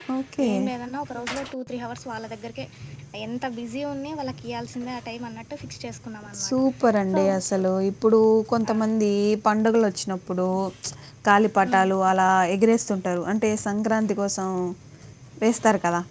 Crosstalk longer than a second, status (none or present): none